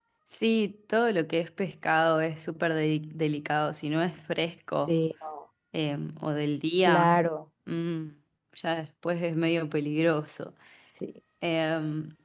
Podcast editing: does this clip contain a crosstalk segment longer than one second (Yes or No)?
No